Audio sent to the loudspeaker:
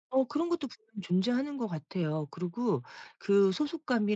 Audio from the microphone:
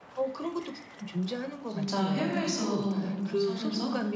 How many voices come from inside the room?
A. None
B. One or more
B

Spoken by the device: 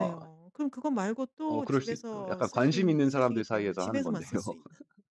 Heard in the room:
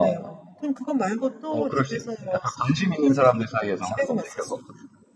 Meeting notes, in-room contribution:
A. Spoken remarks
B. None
B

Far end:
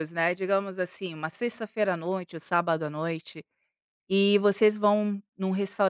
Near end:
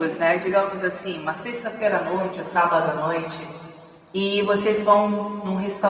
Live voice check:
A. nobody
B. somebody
A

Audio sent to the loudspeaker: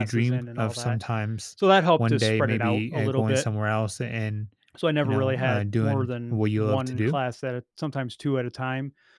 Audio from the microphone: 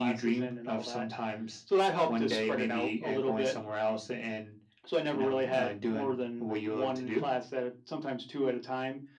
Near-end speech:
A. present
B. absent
B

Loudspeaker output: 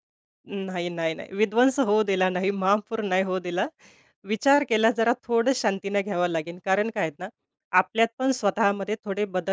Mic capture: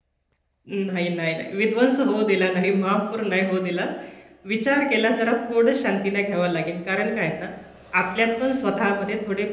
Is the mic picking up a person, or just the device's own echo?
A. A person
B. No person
B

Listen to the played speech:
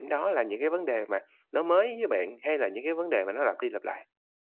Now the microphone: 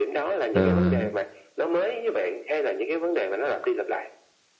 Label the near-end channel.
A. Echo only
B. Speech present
B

